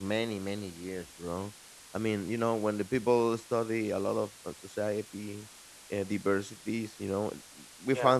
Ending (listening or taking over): listening